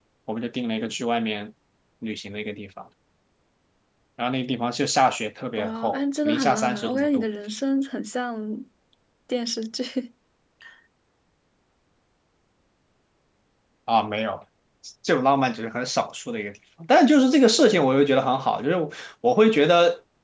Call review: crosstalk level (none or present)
present